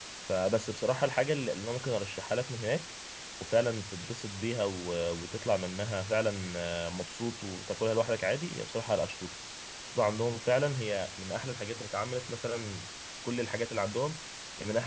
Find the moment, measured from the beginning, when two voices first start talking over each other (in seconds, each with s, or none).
none